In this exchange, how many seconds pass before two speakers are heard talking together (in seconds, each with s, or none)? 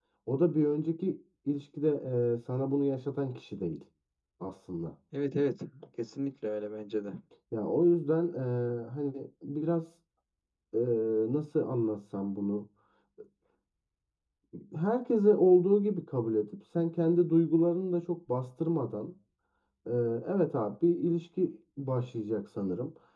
none